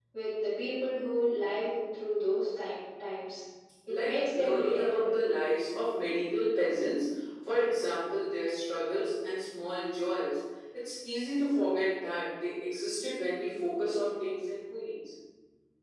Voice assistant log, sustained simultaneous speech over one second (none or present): present